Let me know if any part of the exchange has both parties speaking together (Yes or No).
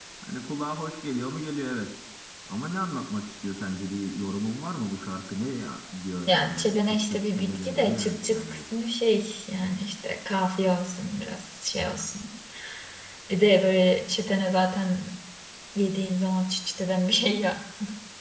Yes